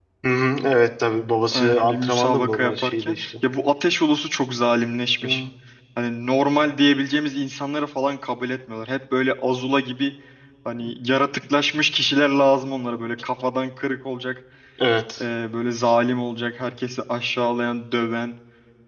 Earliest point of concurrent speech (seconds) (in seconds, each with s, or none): 1.5 s